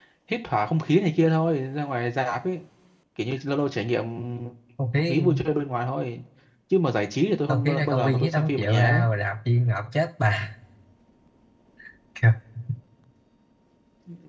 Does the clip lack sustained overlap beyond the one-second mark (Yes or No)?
No